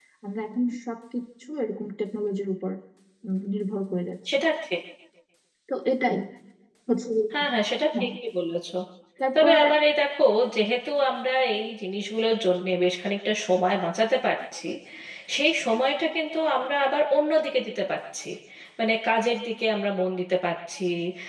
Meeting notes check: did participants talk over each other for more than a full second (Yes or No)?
No